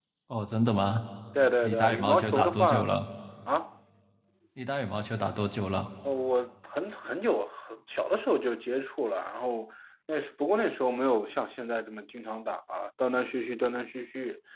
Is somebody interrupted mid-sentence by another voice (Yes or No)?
Yes